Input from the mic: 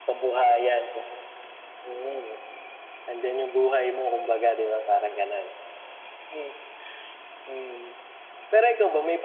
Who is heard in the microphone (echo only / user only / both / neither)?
echo only